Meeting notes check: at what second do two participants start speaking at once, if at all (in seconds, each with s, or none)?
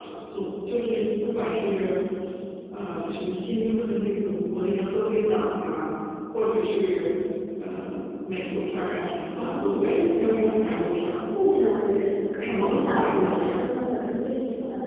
9.3 s